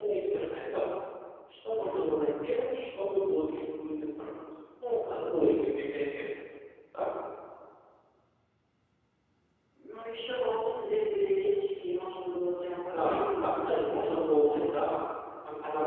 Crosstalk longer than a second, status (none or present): present